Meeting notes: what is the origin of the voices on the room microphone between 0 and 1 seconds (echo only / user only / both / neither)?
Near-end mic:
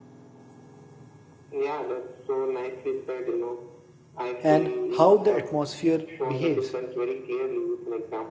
neither